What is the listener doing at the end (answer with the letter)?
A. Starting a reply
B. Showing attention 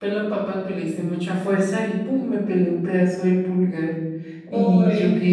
B